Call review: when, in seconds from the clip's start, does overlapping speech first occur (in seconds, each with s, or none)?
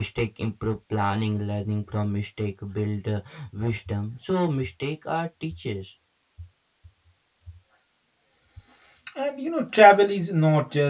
none